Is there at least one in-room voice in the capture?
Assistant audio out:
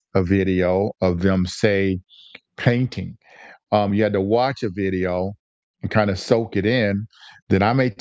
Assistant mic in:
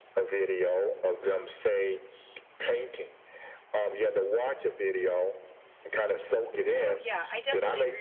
Yes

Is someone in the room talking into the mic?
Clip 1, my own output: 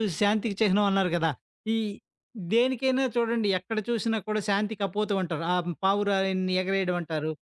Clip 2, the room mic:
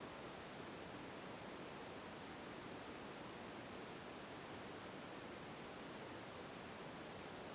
No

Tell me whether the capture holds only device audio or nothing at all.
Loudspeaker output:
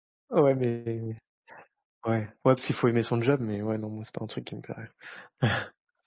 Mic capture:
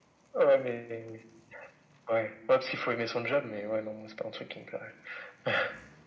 Yes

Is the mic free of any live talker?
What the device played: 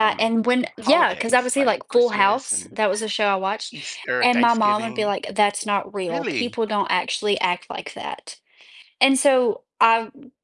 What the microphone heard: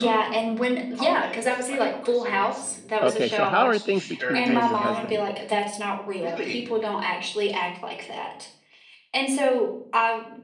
No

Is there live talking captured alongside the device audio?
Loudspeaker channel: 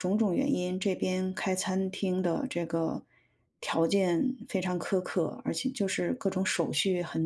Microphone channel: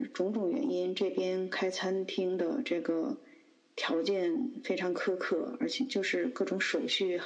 No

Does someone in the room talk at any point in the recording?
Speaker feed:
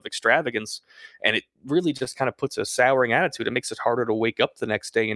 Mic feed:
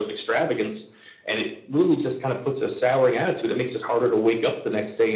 No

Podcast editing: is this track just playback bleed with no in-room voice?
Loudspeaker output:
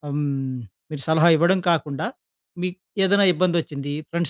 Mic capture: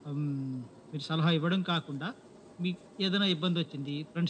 Yes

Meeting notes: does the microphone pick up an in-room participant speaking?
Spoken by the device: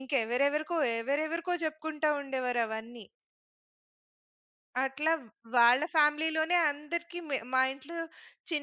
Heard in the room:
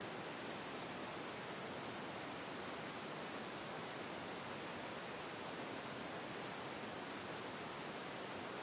No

